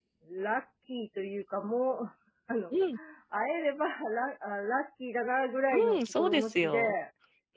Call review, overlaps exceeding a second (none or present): present